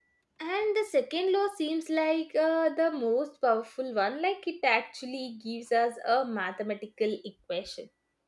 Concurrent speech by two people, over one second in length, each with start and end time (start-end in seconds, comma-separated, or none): none